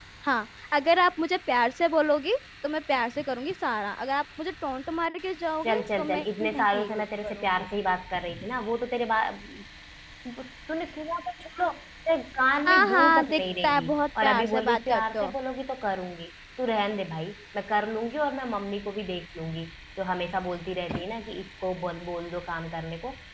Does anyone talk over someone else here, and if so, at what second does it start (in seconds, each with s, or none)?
5.6 s